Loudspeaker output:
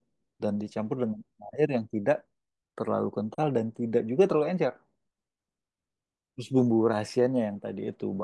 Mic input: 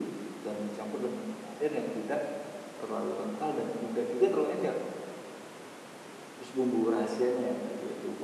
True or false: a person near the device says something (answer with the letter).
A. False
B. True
A